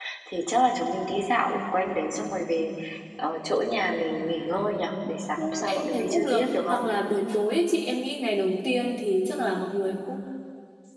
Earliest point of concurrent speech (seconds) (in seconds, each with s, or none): 5.4 s